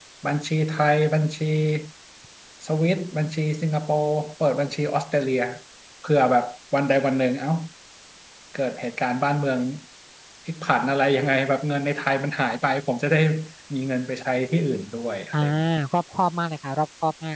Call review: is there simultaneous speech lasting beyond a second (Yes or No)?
No